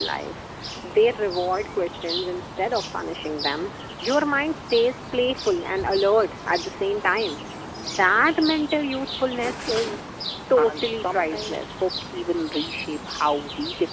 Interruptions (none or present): present